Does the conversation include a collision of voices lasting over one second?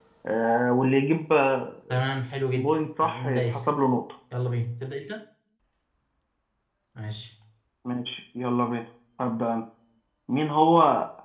Yes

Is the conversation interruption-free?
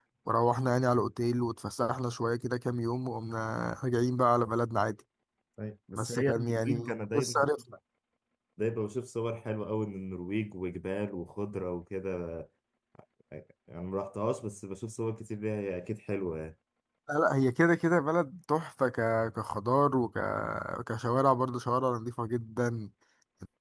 No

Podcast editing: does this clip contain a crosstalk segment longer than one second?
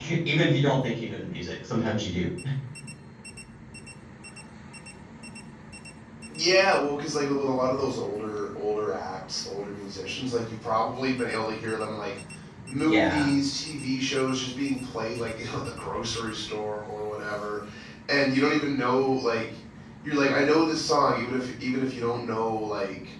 No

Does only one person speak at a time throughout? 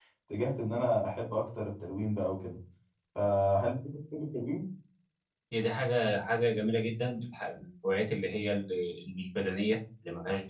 Yes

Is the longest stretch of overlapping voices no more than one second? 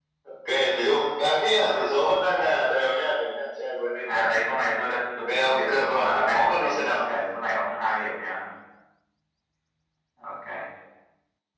No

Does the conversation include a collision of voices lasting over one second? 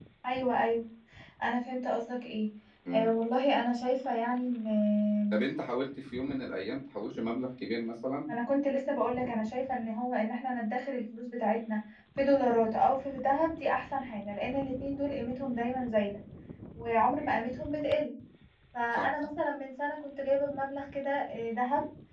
No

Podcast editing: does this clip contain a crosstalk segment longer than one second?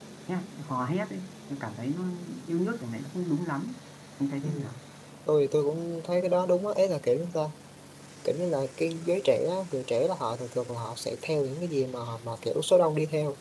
No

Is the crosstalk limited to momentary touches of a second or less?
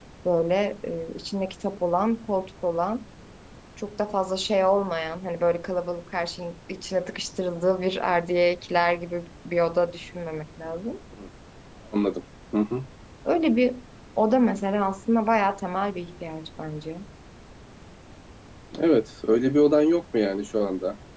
Yes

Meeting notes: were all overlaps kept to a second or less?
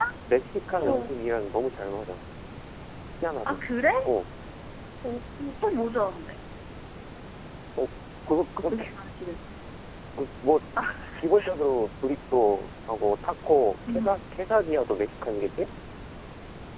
Yes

